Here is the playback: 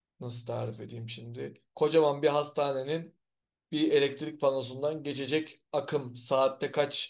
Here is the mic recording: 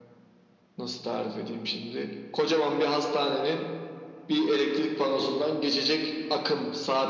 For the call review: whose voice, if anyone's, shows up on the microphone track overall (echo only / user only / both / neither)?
echo only